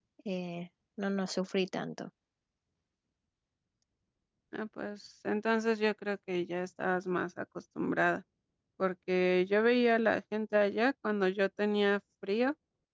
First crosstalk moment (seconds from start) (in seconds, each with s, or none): none